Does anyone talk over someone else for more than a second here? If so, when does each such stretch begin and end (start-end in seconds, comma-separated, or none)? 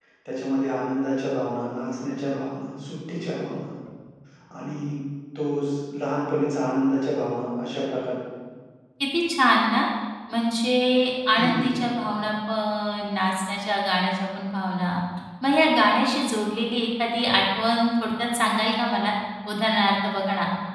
none